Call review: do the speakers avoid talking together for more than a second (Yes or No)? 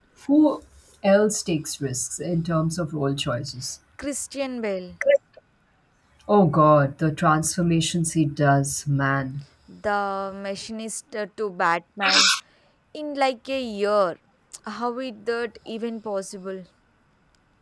Yes